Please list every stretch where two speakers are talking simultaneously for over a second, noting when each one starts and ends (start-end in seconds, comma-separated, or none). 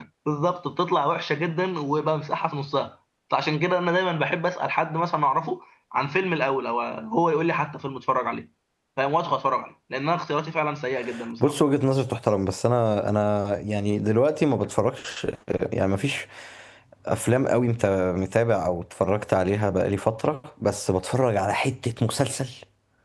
none